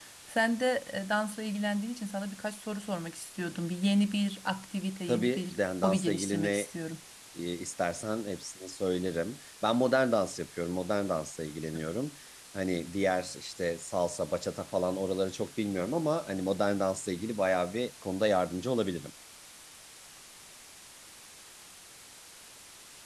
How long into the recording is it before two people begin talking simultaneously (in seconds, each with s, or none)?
5.1 s